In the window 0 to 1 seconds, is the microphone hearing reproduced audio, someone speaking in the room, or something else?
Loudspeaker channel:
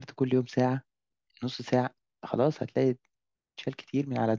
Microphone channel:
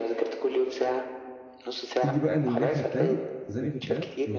echo only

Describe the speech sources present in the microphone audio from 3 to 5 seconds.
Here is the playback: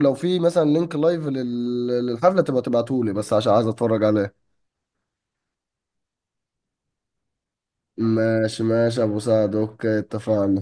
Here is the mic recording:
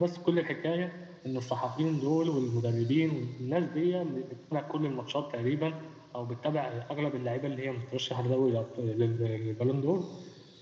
user only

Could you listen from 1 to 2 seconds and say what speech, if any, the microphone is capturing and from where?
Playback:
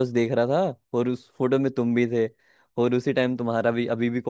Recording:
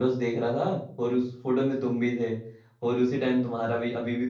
echo only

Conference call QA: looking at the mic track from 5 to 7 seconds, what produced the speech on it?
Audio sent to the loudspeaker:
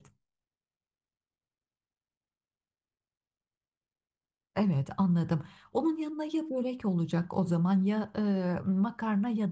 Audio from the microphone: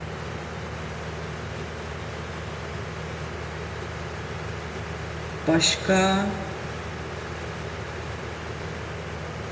user only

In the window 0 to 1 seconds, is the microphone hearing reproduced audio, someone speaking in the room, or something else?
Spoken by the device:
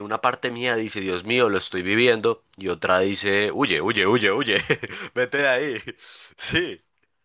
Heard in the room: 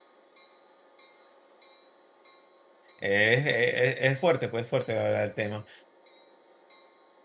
neither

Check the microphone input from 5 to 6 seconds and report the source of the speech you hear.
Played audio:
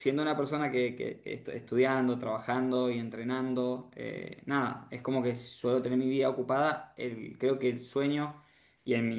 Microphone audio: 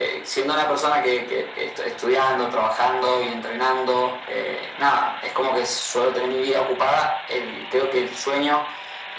echo only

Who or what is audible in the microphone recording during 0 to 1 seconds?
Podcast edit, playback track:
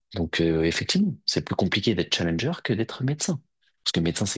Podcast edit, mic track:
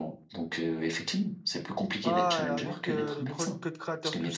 echo only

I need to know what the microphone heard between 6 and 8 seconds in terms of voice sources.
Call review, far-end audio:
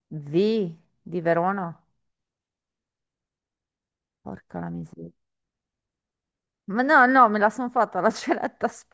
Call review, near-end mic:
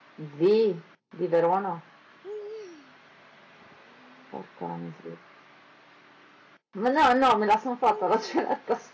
echo only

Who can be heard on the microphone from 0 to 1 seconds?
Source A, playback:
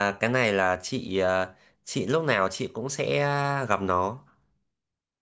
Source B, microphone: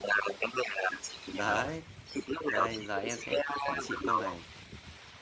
echo only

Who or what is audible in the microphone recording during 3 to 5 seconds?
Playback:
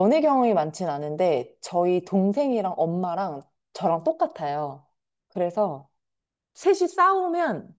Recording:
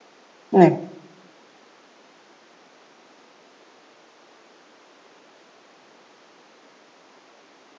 neither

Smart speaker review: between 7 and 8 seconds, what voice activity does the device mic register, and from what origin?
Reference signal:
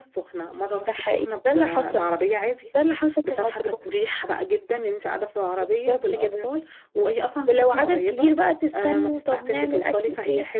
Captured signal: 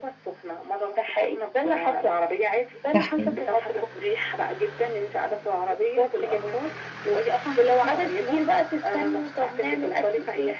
echo only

